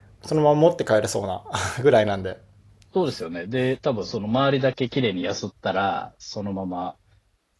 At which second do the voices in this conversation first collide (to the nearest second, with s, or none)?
none